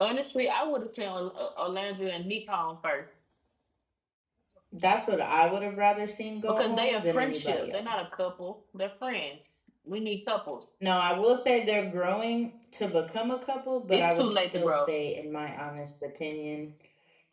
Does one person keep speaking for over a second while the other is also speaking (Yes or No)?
Yes